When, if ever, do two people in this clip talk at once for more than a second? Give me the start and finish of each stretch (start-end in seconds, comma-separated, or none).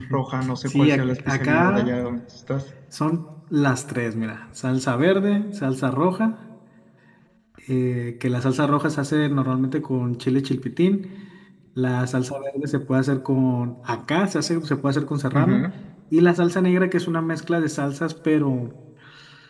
0.7-1.9